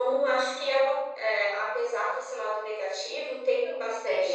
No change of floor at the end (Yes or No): No